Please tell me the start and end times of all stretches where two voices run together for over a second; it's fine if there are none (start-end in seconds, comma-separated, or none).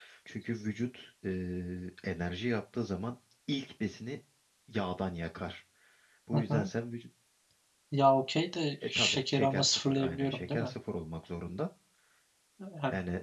8.8-10.7